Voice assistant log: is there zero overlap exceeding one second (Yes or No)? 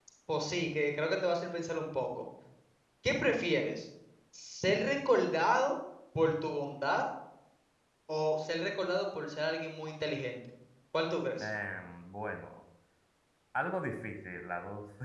Yes